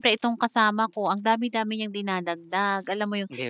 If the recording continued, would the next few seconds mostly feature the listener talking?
No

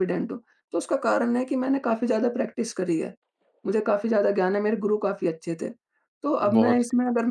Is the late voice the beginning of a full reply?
No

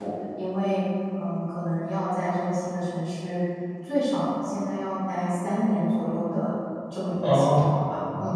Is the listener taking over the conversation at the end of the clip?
Yes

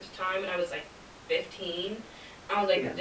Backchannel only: Yes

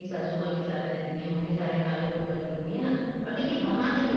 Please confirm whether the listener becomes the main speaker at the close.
No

